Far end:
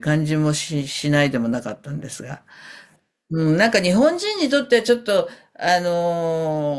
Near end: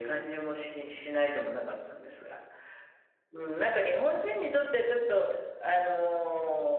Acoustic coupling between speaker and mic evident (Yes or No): Yes